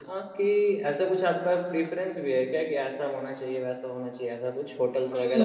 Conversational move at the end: taking over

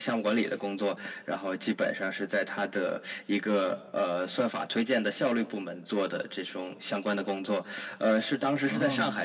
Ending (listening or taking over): listening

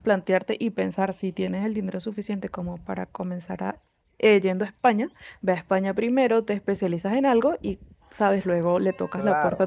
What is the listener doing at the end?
taking over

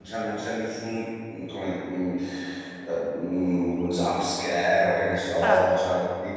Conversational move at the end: listening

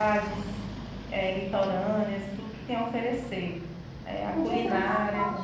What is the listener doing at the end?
taking over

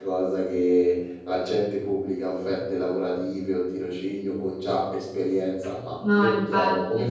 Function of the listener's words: listening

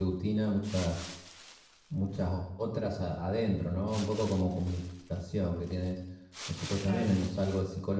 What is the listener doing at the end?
listening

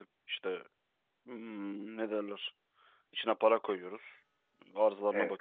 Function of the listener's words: listening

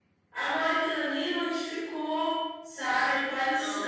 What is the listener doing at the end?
listening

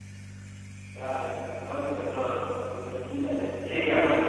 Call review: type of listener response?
taking over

